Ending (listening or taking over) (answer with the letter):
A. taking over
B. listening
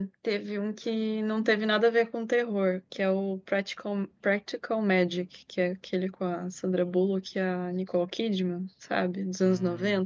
A